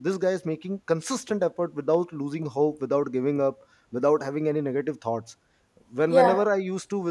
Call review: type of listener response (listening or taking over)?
listening